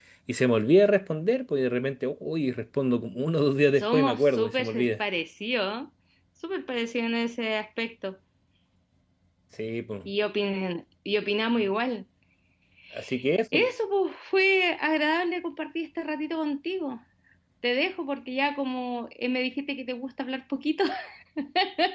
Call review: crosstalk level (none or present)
present